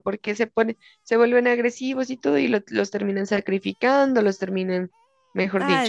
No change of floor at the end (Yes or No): No